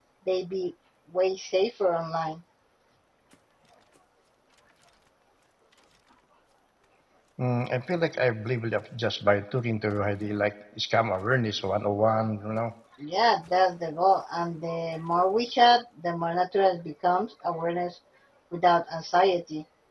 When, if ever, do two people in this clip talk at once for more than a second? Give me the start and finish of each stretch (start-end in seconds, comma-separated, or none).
none